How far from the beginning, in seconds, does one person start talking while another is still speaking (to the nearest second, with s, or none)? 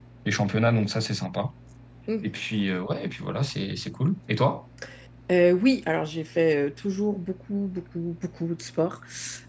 none